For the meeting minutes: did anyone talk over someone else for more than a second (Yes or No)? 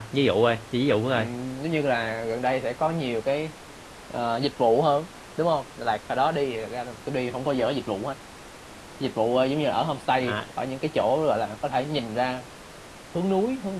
No